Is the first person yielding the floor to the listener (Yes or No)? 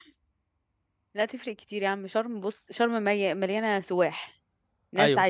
No